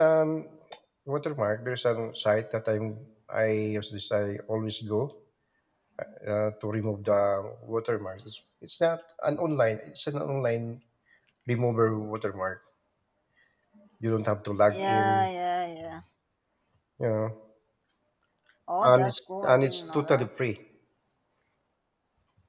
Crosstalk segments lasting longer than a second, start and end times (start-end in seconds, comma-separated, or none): 18.9-20.3